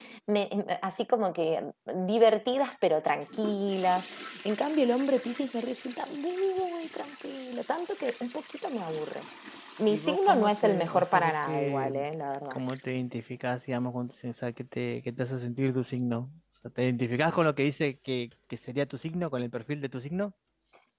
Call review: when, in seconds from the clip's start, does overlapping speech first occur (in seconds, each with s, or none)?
9.9 s